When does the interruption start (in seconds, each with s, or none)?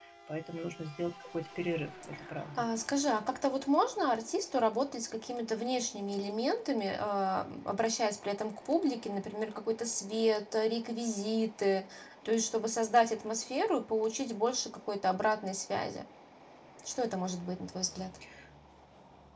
none